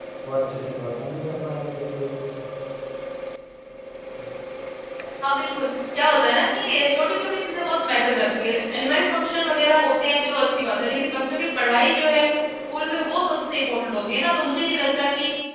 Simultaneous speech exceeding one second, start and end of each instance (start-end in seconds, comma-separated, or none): none